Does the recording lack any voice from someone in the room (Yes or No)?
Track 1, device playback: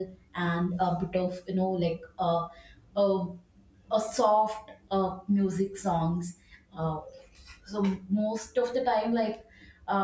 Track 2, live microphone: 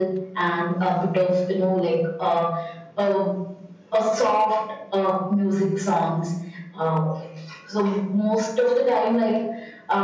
Yes